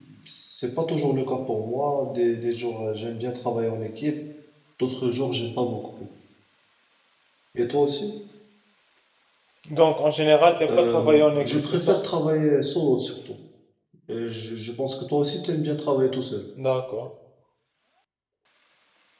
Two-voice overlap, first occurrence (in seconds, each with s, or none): 10.7 s